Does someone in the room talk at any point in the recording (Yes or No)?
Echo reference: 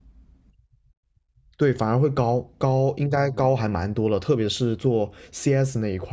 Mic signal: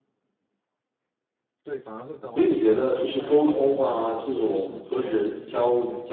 Yes